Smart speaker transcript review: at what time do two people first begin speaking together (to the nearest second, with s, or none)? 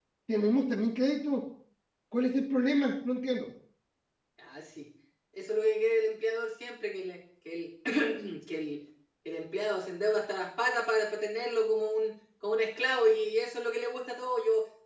none